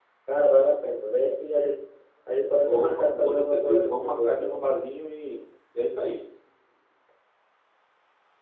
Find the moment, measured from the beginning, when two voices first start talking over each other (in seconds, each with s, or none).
2.6 s